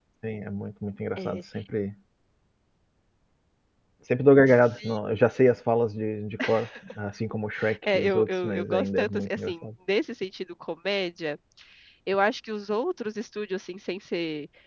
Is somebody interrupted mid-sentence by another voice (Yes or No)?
Yes